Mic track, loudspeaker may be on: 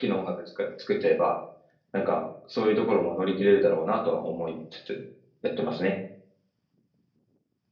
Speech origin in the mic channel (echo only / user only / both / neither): user only